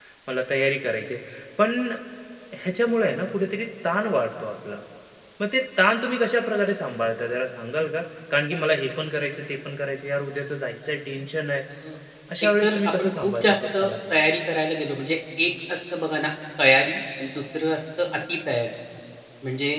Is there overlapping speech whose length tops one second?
Yes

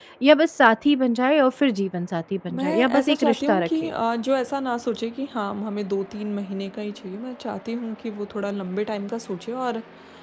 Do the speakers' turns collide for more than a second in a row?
Yes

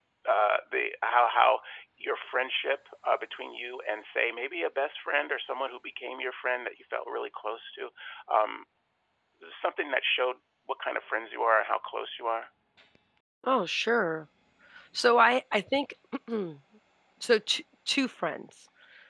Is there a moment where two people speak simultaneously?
No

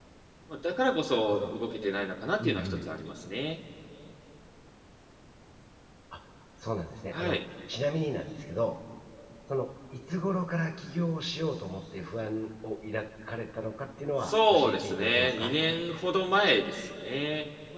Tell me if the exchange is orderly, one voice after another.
No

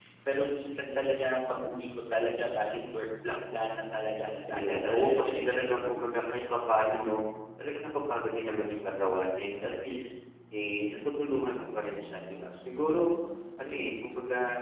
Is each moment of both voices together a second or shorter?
No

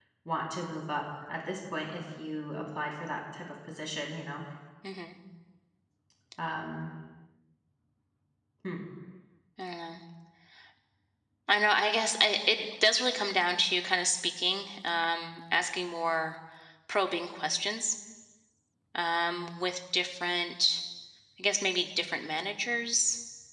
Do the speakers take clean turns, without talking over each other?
Yes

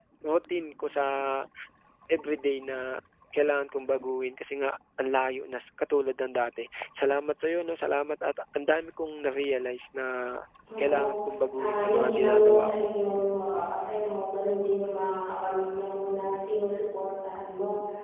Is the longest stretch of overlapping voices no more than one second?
No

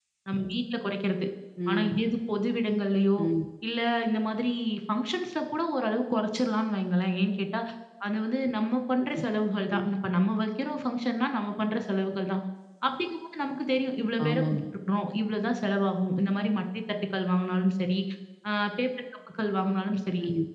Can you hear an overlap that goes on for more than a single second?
No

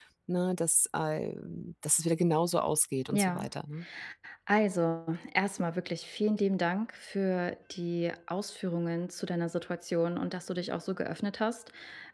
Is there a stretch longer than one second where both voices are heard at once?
No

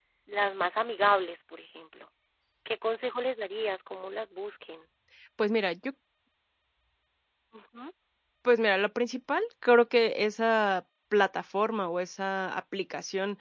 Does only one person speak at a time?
Yes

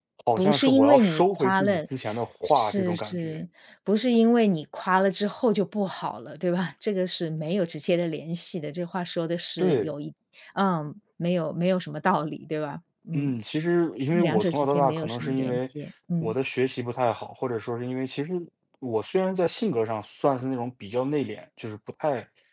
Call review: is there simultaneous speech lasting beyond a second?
Yes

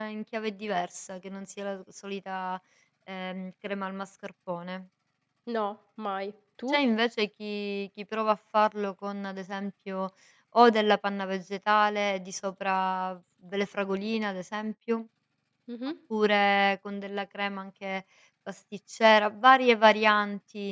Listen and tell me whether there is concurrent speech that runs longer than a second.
No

